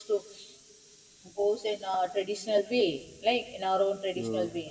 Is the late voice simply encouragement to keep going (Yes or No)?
Yes